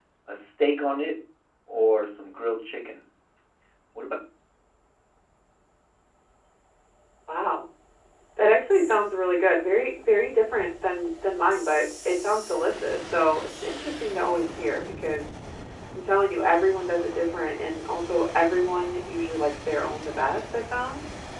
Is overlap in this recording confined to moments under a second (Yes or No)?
Yes